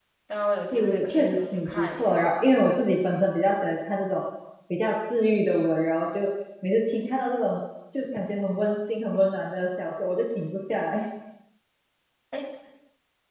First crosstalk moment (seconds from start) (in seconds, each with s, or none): 0.7 s